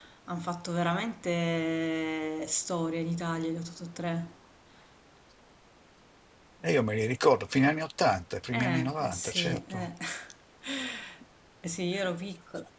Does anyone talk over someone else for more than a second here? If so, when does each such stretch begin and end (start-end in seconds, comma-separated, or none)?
8.5-9.9